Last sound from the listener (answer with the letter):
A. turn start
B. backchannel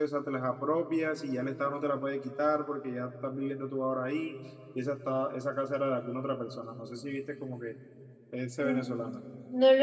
A